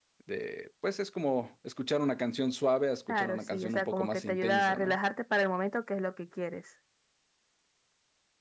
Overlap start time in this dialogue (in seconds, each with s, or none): 3.1 s